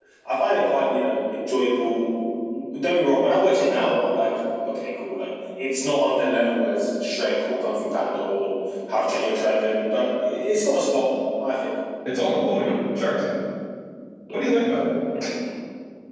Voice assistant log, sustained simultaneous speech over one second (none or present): none